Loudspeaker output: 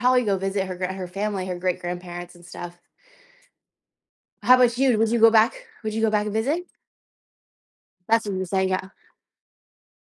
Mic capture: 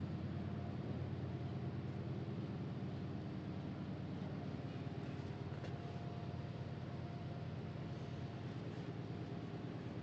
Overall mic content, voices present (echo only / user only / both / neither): neither